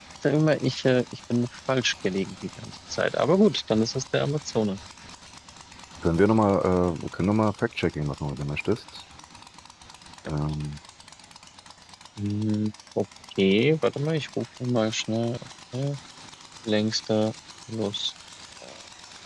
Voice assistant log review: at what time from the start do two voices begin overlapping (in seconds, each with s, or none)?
none